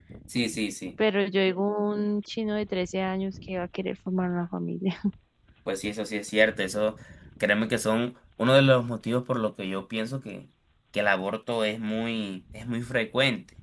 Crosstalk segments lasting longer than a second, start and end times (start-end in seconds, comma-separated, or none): none